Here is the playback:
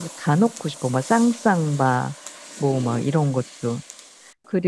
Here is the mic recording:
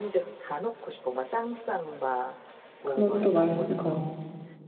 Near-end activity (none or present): present